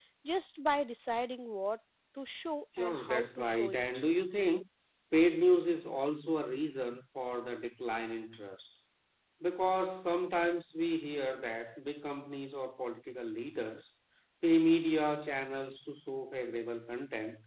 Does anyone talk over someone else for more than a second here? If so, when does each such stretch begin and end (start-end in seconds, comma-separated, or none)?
2.8-4.1